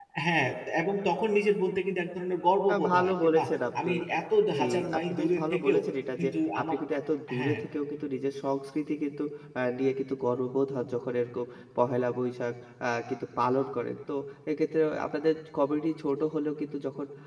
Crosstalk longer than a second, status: present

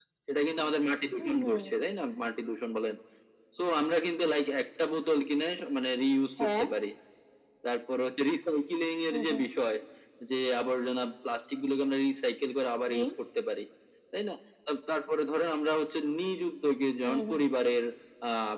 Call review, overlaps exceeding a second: none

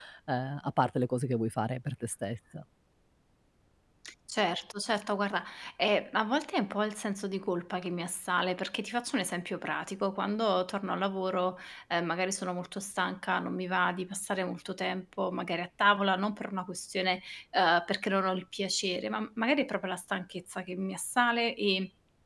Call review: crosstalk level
none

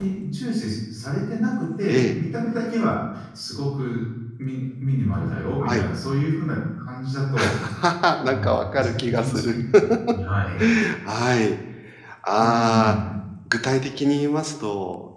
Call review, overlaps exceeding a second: present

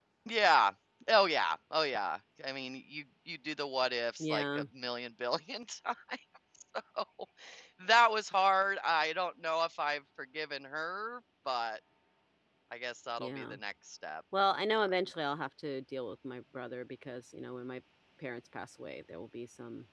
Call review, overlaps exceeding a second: none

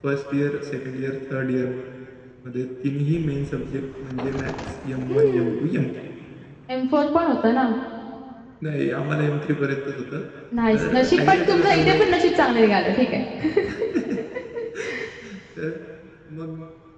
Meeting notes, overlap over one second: present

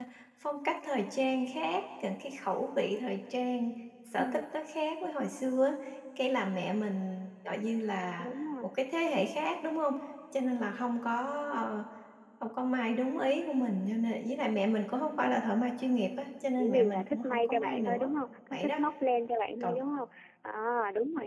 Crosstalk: present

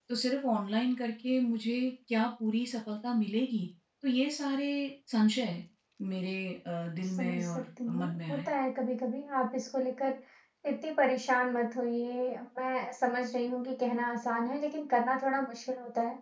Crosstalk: present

